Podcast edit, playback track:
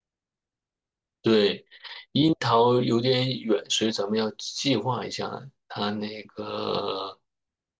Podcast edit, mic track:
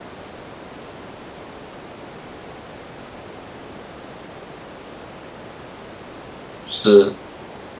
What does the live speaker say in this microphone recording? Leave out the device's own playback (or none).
是，